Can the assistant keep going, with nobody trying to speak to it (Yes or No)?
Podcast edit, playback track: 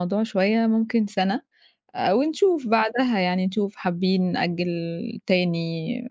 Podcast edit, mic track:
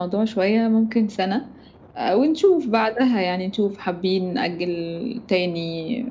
Yes